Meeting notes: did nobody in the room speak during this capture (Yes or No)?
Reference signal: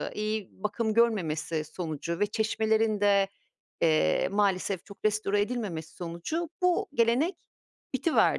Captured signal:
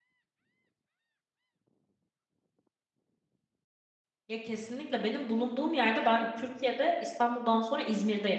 No